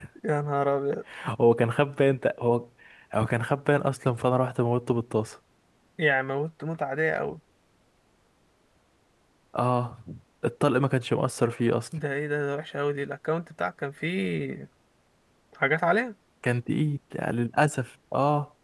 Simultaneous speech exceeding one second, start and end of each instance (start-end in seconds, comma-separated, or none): none